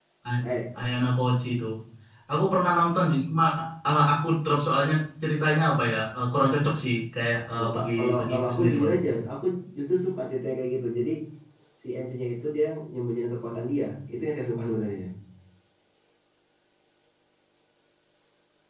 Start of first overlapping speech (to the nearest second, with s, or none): 8 s